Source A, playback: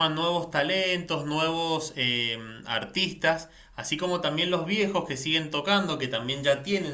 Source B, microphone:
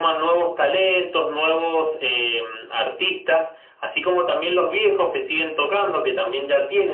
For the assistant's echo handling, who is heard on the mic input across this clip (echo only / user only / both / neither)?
echo only